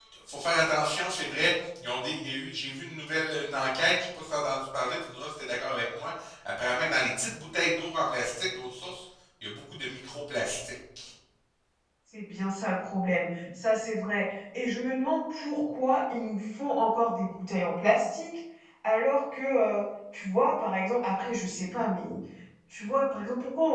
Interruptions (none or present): none